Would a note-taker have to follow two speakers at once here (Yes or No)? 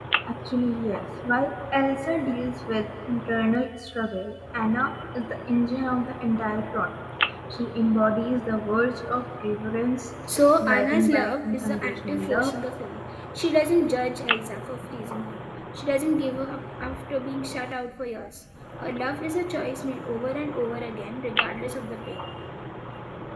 Yes